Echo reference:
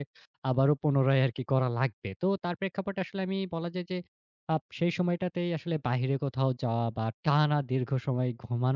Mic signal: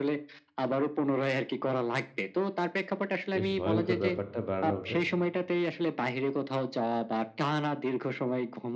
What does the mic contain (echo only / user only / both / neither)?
both